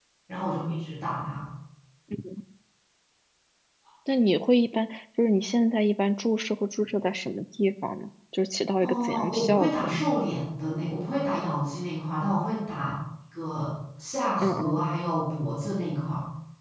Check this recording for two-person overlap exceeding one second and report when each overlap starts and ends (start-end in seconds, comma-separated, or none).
8.8-10.0